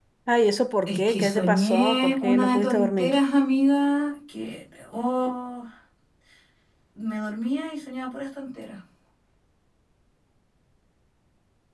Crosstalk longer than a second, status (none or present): present